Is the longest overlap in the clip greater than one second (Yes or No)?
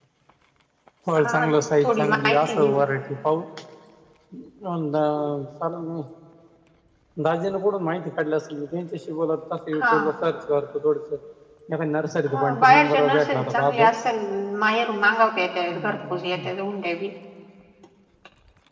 Yes